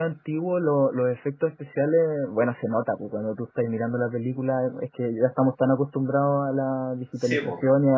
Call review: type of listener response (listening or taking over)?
listening